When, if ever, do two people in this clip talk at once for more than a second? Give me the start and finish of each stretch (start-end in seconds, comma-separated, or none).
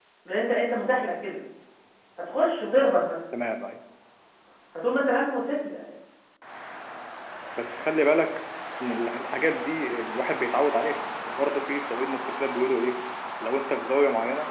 none